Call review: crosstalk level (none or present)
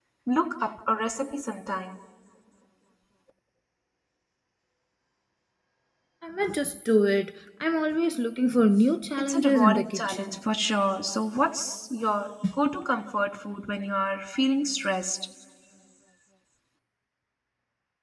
present